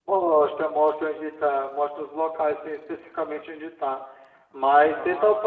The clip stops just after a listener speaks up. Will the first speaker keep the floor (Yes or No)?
Yes